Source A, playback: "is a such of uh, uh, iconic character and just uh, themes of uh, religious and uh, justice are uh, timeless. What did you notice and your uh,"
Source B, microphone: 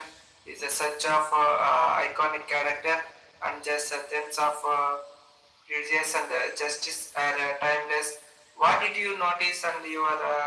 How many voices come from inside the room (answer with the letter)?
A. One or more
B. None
B